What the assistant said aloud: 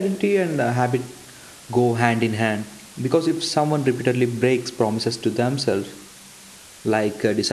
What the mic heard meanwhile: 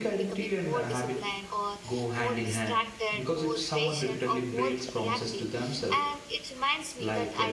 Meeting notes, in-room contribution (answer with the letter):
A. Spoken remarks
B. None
A